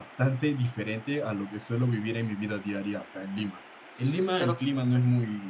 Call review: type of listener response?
listening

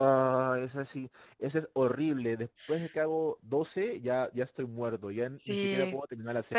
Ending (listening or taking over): taking over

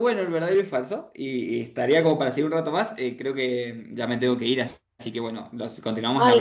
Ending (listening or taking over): taking over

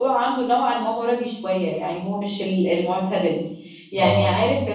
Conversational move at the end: listening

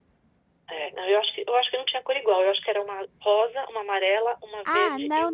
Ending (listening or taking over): taking over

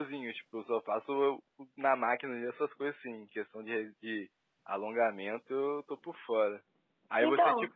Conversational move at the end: listening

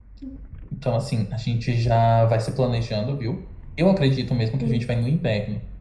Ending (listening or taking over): listening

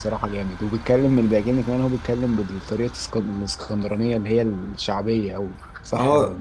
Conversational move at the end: taking over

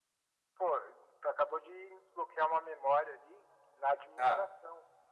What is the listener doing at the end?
listening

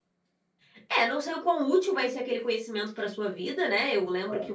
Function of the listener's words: listening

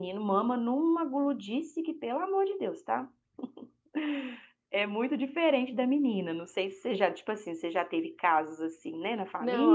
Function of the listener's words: taking over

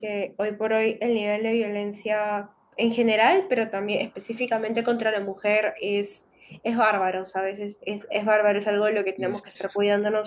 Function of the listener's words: listening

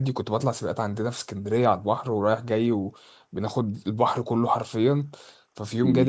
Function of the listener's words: listening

